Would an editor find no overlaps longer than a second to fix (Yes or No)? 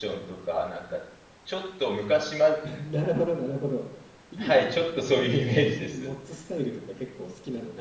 No